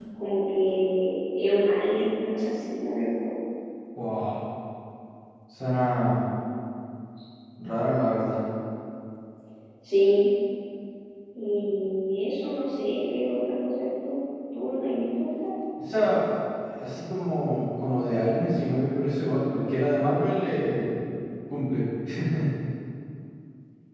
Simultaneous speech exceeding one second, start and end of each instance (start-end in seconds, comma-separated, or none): none